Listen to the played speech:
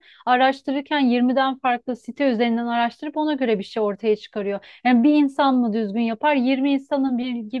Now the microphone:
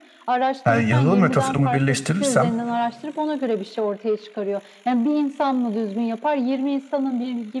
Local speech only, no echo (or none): Yani yazılım ve tasarımı birleştirirsem